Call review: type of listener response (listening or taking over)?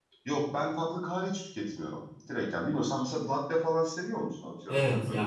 taking over